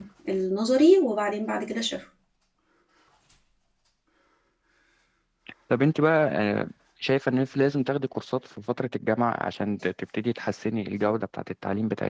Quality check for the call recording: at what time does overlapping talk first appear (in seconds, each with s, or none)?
none